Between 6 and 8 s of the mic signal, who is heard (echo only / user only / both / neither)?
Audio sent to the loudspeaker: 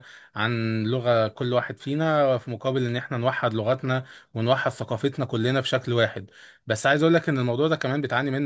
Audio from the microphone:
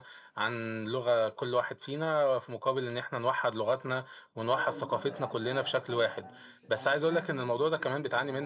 both